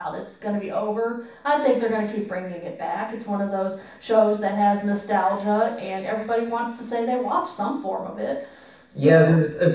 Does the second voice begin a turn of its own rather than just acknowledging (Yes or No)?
Yes